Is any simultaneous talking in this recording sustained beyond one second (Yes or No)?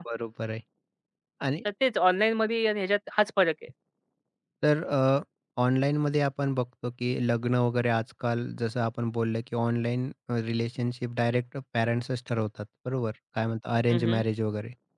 No